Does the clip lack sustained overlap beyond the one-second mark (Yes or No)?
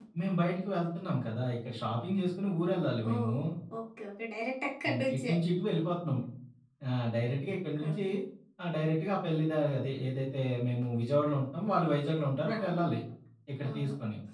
Yes